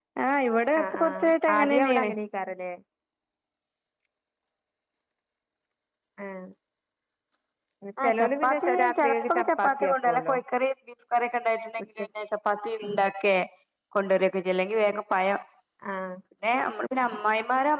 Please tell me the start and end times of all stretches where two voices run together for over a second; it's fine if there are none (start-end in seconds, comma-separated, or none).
0.8-2.1, 8.0-10.3